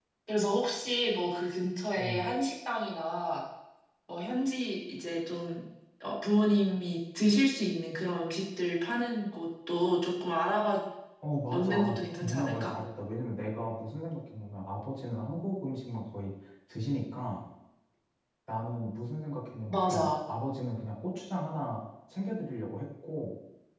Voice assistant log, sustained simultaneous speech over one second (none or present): present